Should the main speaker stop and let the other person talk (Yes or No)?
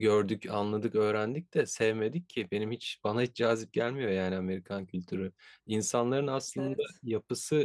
No